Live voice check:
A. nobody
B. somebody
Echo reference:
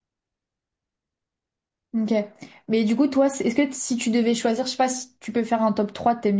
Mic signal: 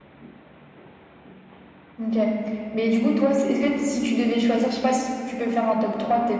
A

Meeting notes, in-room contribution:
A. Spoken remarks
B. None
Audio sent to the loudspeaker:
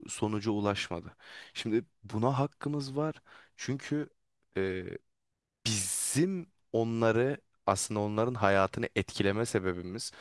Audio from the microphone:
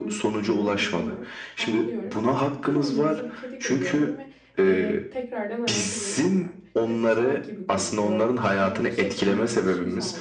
A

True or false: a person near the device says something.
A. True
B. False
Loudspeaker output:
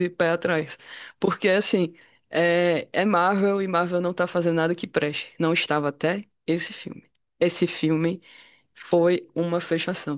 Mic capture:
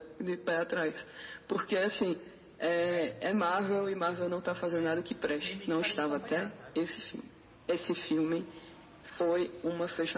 A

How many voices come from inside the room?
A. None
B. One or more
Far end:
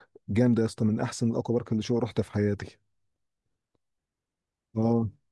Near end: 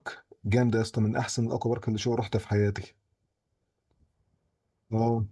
A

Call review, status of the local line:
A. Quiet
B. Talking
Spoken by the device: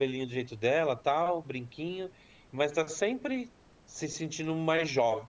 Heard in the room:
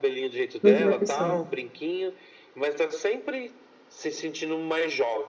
B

